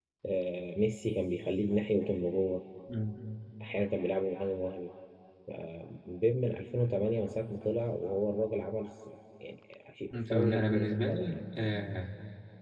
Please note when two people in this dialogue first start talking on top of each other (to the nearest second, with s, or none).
10 s